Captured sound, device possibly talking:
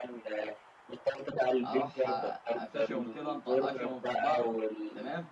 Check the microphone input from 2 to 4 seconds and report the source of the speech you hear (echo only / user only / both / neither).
both